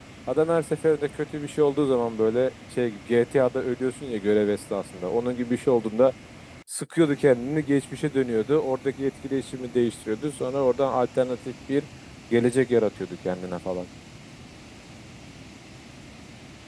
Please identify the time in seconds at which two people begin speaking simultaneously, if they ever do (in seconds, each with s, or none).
none